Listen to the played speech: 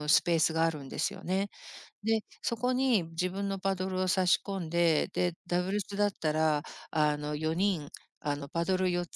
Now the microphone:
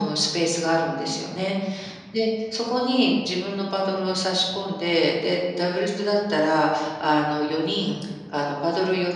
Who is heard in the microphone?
echo only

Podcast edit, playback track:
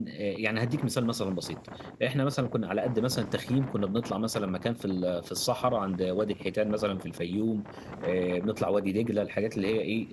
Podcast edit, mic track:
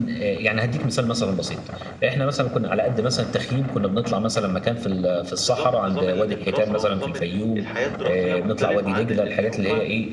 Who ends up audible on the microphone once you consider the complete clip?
both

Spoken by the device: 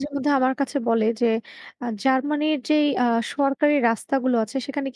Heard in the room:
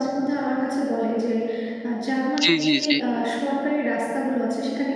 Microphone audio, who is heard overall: both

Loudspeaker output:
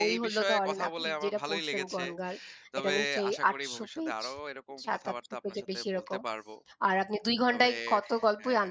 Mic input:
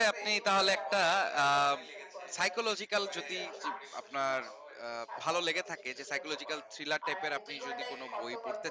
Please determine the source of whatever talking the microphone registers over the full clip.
both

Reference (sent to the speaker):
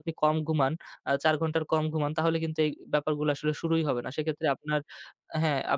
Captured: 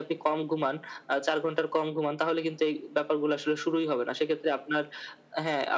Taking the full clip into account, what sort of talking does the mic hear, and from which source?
echo only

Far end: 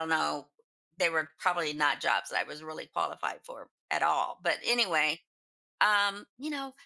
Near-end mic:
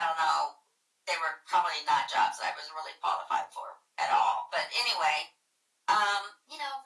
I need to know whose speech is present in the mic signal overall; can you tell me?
echo only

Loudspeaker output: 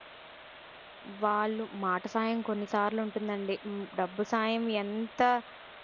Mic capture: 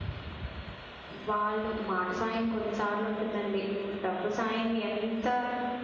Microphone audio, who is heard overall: echo only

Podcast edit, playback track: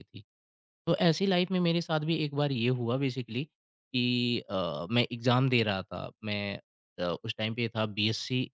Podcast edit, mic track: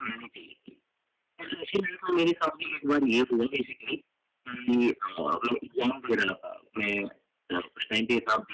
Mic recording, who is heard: echo only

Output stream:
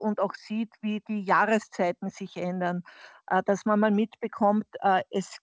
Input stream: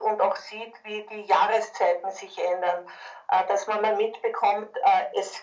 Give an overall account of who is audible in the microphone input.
echo only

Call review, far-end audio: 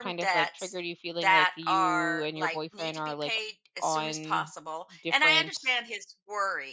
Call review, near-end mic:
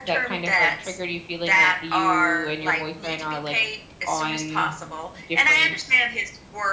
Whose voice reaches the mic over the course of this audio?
echo only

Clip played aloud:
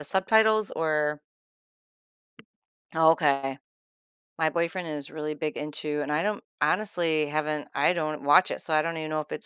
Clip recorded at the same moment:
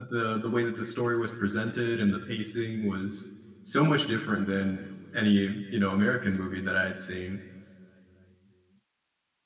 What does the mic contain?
user only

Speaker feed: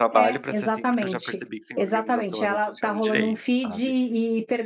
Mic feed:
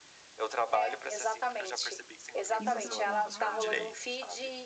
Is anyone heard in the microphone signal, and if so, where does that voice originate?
both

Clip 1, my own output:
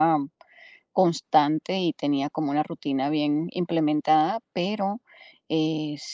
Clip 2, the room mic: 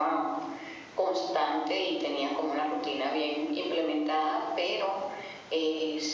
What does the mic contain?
echo only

